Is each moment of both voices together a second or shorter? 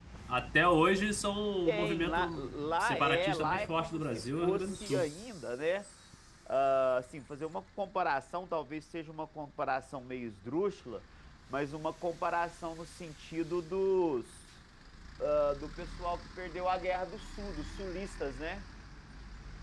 No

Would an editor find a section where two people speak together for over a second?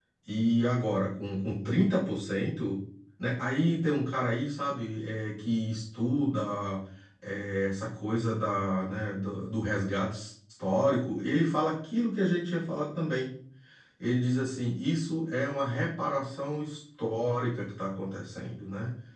No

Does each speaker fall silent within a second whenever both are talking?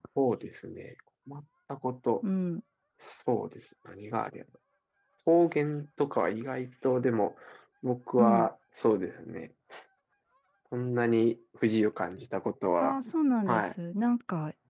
Yes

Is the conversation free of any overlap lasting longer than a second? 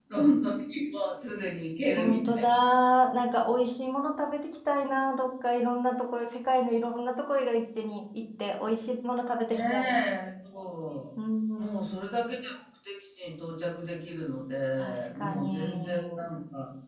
No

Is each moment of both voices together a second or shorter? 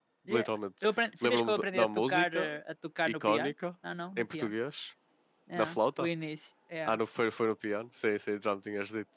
No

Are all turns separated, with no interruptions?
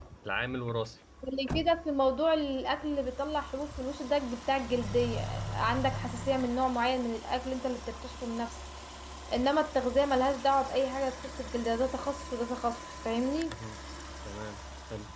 Yes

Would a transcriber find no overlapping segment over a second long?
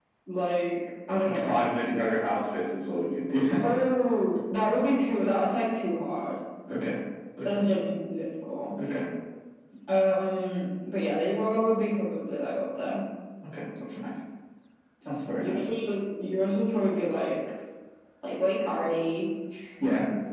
Yes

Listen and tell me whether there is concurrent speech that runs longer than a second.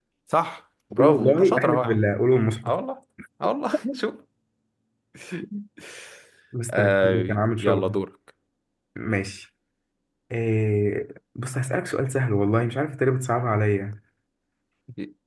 Yes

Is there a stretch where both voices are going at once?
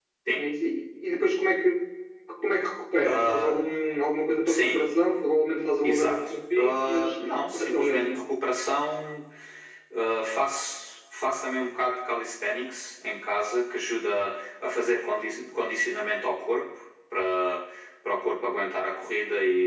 Yes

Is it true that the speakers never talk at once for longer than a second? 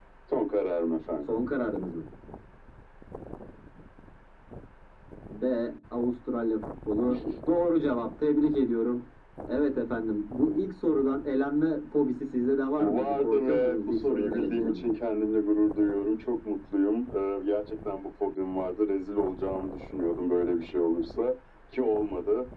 No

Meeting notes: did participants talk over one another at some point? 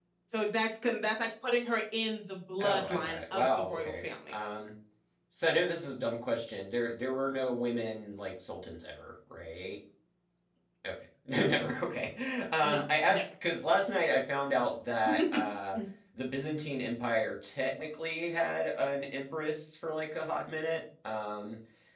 Yes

